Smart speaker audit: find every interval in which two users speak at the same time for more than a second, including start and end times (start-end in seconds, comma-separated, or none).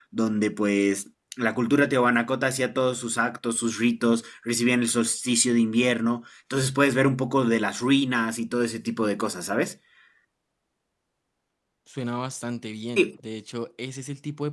none